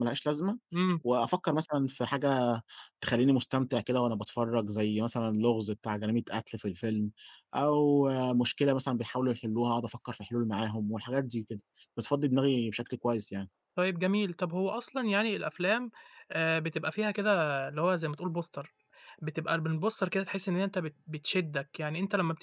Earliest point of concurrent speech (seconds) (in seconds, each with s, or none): none